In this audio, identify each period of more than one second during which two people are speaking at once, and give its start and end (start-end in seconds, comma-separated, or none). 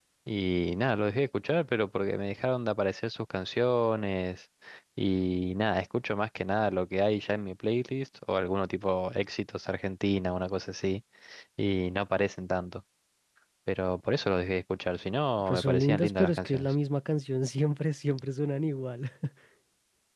15.4-16.7